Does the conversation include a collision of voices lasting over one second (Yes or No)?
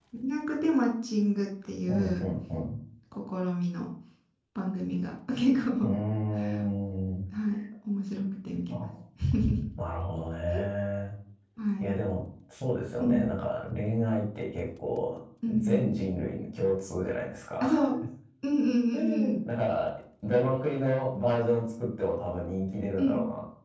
No